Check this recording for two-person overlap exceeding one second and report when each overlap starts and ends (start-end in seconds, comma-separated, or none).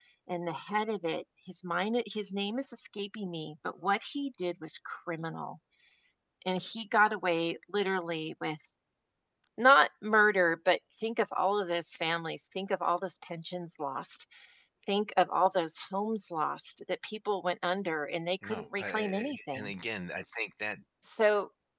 18.5-19.7